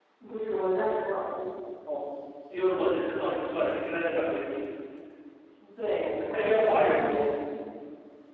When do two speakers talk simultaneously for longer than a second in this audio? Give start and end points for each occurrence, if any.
6.0-7.3

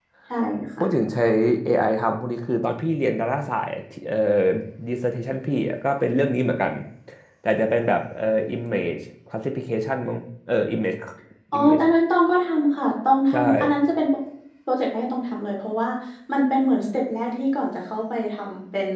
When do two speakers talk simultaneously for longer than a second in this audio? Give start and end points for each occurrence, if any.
none

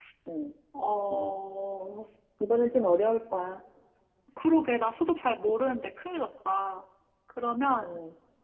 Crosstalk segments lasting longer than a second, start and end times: none

